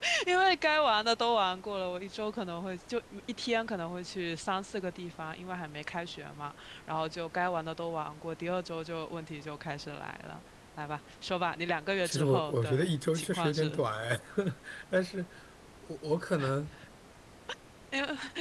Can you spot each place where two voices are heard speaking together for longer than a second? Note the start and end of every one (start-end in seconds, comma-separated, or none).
12.0-13.8